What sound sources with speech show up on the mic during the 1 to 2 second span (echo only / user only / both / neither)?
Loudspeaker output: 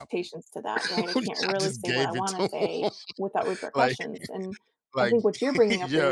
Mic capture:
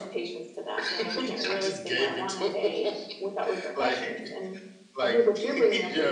echo only